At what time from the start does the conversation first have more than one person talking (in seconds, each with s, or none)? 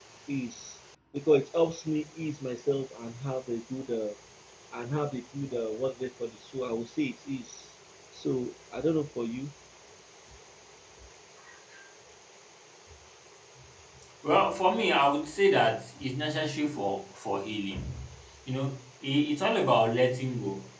none